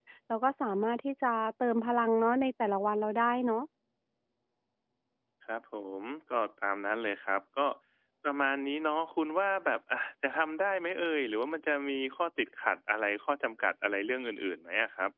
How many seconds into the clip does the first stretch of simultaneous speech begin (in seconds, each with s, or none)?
none